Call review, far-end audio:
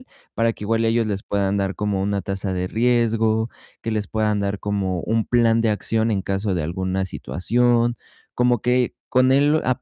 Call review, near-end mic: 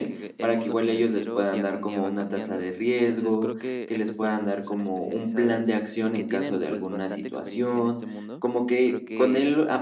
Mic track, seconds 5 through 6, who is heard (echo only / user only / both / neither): both